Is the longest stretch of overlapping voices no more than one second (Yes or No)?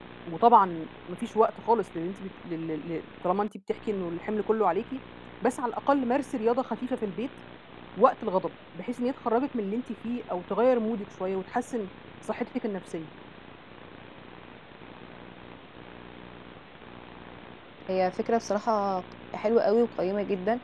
Yes